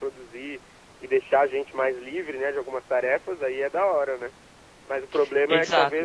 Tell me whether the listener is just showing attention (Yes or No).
Yes